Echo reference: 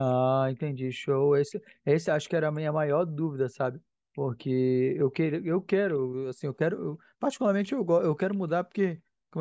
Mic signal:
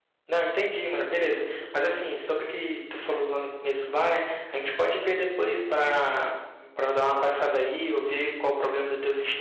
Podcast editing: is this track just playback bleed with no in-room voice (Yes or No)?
No